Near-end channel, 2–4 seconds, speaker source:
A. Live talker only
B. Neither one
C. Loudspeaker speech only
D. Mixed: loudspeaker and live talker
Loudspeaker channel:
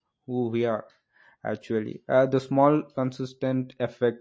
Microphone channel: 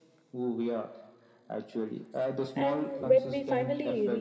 D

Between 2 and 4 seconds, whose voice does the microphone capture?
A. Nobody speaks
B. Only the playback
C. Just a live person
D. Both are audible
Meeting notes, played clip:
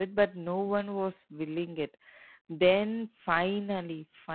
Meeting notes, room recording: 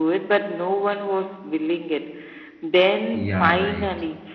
D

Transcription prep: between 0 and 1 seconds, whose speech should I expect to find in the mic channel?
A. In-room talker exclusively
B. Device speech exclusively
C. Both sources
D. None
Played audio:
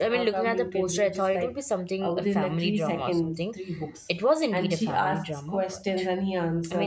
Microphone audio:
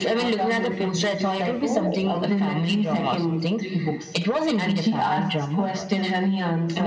B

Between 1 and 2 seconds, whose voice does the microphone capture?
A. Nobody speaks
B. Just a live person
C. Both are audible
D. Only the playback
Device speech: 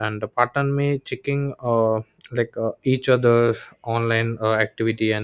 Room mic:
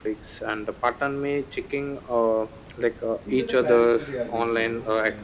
D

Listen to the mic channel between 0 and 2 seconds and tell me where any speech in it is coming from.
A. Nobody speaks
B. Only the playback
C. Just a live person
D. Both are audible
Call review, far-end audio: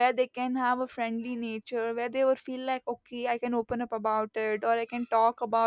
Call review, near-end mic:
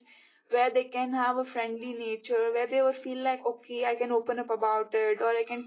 B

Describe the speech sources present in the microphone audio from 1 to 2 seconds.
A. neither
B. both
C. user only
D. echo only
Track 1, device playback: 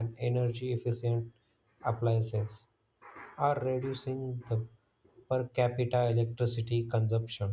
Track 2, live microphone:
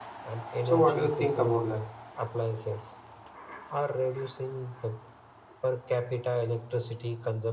B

